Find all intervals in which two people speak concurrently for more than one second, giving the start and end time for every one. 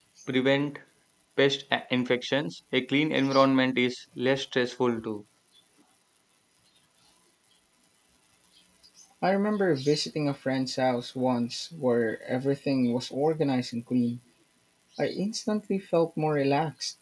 none

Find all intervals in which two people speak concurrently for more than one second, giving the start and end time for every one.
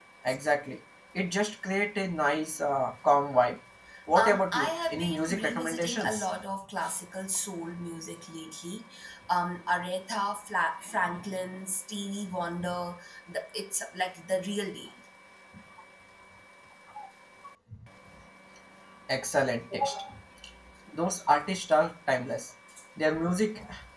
4.2-6.3

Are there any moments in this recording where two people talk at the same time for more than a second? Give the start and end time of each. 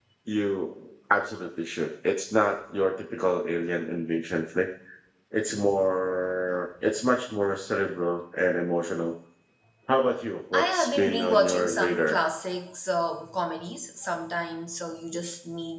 10.5-12.2

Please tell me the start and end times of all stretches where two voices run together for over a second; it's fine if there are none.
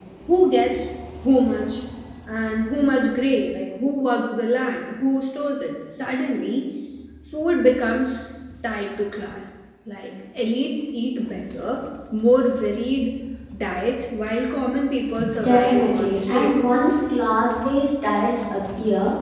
15.4-16.9

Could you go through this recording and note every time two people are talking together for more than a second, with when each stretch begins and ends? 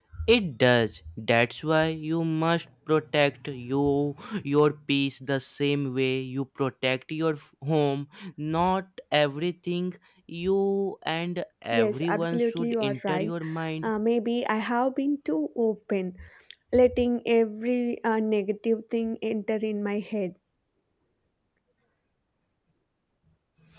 11.7-13.3

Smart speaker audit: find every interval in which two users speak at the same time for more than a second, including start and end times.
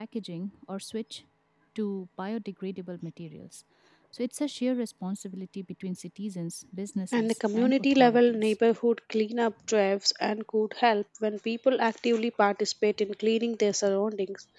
7.1-8.5

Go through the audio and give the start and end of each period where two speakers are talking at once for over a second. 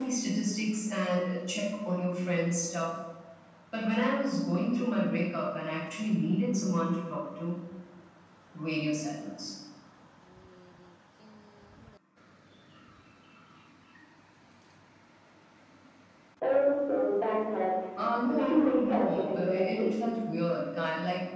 18.3-19.9

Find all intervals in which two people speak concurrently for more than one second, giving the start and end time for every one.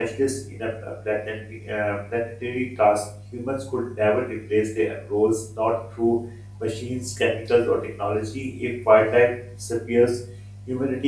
none

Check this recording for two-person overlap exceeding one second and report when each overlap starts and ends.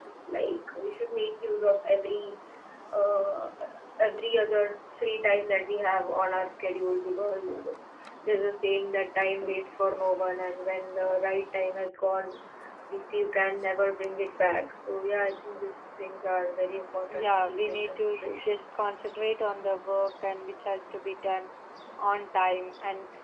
17.2-18.6

